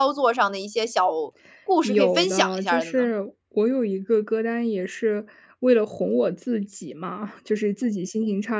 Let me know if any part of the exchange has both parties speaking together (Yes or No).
Yes